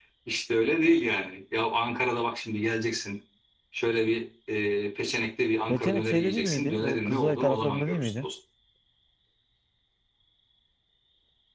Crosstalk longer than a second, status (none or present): present